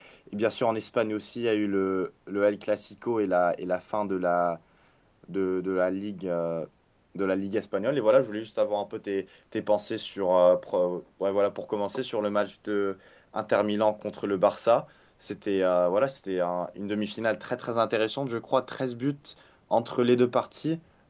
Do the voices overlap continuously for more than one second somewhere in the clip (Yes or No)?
No